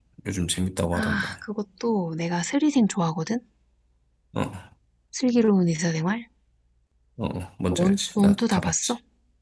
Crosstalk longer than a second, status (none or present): present